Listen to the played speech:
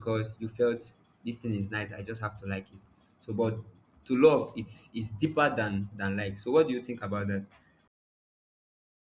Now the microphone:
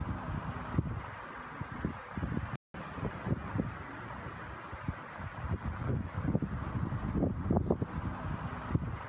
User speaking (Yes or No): No